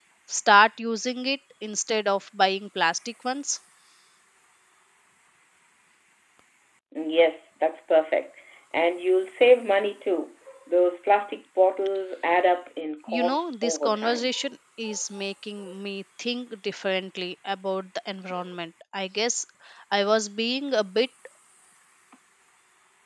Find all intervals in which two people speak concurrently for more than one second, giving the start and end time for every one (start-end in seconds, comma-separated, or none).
13.1-14.3